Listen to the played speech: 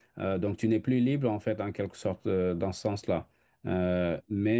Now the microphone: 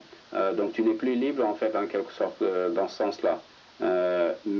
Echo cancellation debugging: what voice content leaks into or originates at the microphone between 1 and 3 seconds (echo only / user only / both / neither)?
echo only